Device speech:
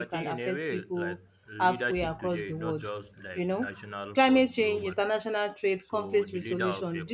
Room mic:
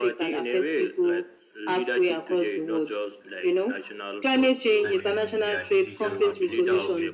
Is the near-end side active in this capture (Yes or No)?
Yes